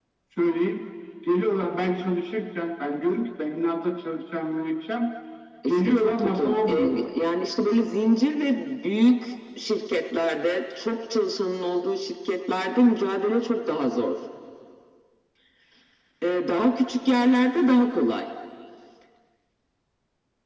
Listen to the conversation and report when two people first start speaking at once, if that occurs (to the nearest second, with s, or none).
6 s